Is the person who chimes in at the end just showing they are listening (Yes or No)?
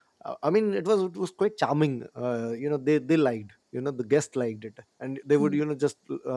Yes